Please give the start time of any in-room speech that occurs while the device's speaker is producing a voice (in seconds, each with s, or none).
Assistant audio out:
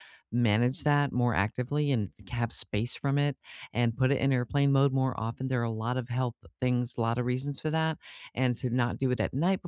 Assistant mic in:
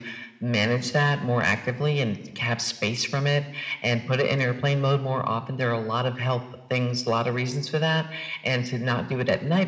none